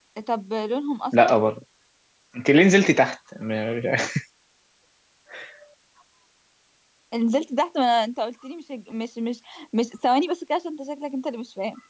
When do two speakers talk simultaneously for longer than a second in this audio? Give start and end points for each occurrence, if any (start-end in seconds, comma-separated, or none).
none